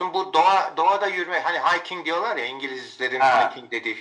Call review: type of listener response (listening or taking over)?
listening